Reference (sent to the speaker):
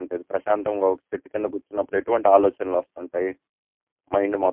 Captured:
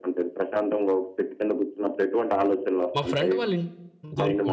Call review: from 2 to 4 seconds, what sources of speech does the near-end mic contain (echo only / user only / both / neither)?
both